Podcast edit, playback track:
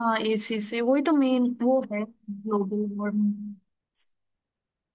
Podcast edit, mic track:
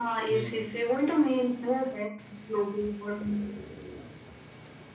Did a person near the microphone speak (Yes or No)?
Yes